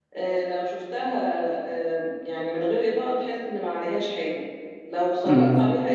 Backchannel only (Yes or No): Yes